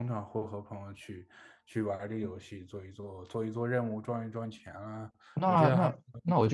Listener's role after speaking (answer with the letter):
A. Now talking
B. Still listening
A